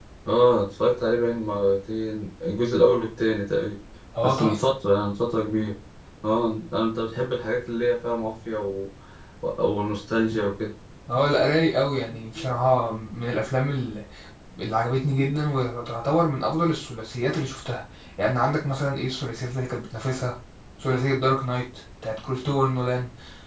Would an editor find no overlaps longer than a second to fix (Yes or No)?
Yes